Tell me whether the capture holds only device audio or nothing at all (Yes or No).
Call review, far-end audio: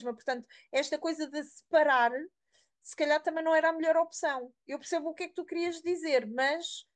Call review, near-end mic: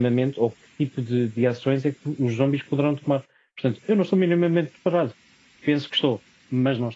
No